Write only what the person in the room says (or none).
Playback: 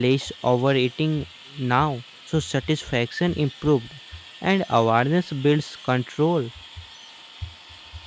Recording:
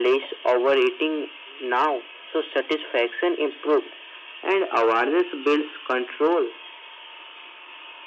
none